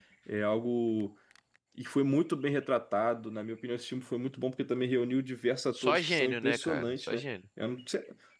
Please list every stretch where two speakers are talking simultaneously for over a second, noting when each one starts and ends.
5.7-7.2

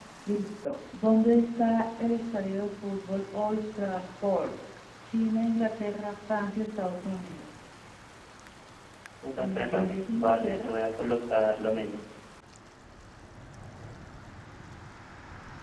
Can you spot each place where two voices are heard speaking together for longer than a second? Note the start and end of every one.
9.4-10.7

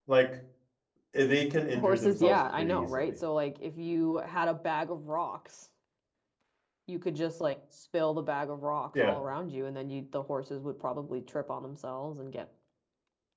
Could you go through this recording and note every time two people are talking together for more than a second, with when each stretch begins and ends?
1.8-3.1

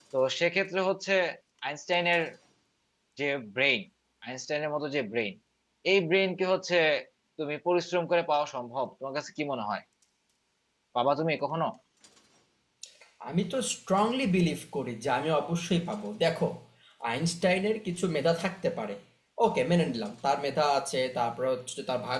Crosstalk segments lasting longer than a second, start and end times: none

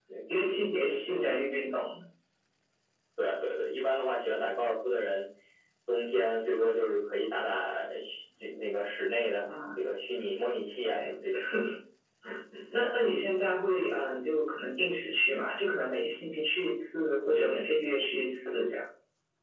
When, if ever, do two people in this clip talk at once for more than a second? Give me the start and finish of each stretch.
none

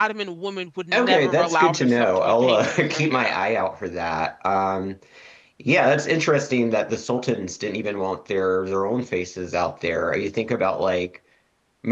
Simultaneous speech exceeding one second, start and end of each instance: 0.9-3.3

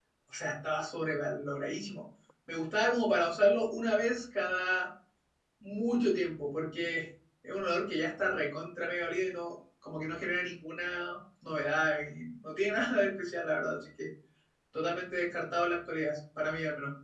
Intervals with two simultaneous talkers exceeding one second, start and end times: none

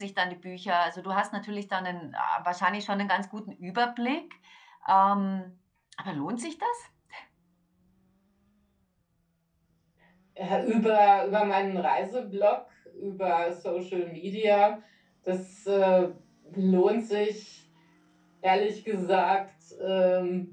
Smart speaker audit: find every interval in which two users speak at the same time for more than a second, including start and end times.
none

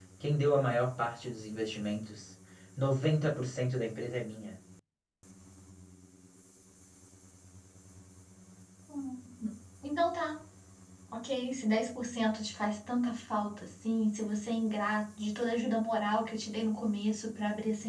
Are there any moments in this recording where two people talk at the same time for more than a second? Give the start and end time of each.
none

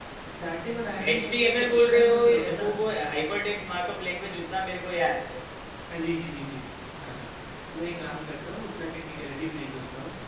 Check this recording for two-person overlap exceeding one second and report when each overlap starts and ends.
1.1-2.7

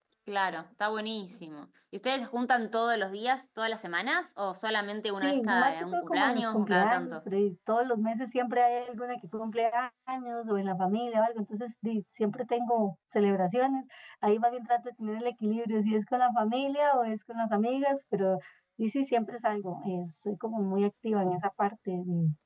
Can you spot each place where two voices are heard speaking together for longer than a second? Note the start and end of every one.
5.2-7.2

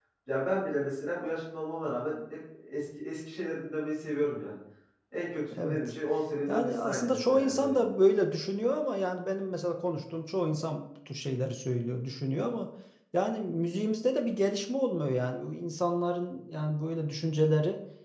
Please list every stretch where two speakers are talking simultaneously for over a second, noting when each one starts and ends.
6.5-7.8

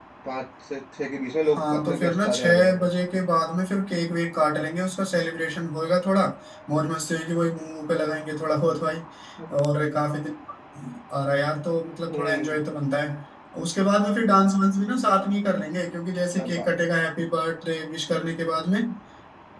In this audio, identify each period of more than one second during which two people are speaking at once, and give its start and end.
1.5-2.9

